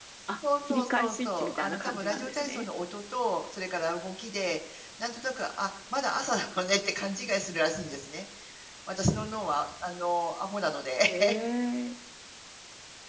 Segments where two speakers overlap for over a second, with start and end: 0.7-2.6

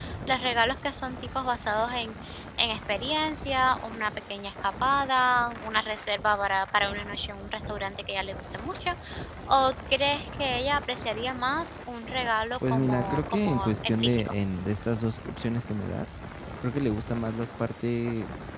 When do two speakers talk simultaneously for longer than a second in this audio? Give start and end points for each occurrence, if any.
12.7-14.3

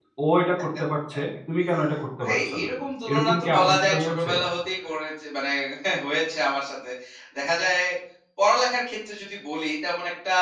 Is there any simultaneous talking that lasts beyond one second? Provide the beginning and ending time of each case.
3.1-4.3

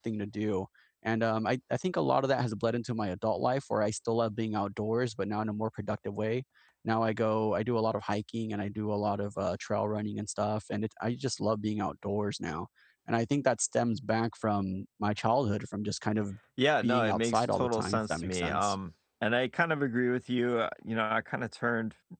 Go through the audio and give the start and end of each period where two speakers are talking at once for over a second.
16.8-18.8

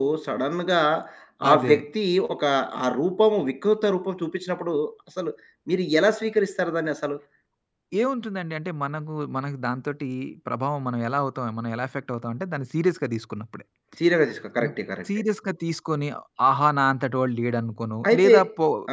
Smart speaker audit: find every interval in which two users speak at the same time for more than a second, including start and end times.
none

